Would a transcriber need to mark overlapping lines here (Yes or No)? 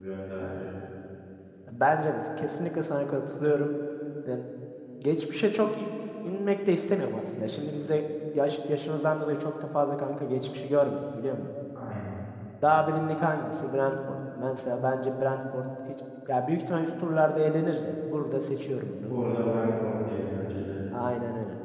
No